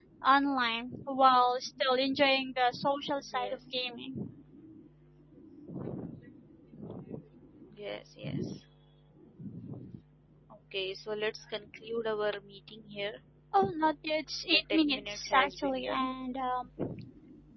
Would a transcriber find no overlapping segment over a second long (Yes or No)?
No